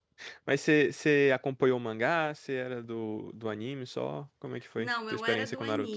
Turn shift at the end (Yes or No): Yes